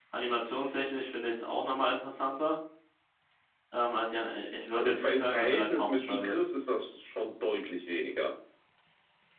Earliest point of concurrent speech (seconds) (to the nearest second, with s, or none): 5 s